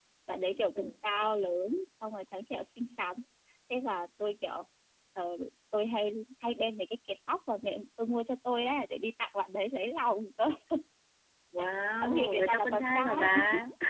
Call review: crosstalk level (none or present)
present